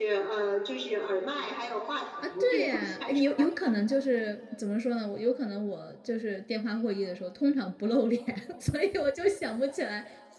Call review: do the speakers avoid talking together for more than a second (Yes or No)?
No